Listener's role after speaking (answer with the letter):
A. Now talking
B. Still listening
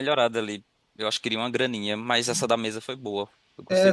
A